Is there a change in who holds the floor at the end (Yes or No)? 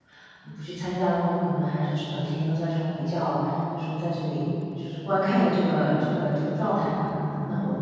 No